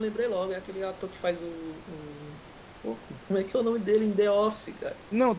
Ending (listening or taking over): taking over